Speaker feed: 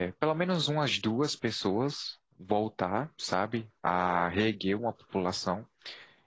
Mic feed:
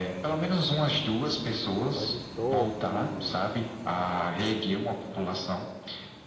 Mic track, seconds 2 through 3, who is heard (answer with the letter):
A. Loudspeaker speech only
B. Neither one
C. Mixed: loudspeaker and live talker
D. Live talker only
C